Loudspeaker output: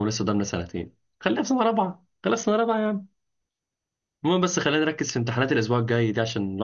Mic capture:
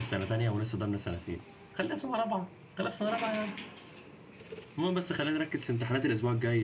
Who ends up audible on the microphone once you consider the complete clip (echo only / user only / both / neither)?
echo only